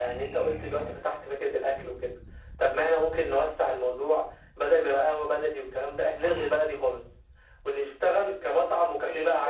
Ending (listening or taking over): taking over